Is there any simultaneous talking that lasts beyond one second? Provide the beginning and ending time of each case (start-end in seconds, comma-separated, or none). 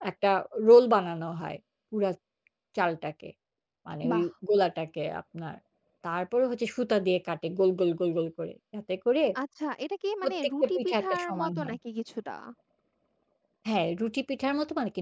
10.2-11.8